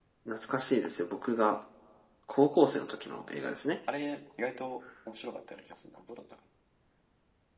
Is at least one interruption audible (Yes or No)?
No